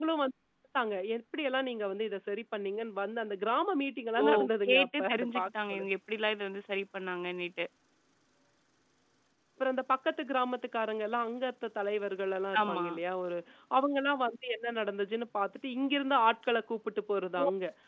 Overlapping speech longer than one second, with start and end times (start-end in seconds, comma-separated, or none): 4.7-5.9